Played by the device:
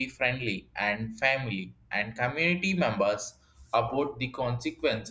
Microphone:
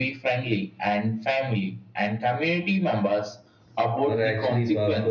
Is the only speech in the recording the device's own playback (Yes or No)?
No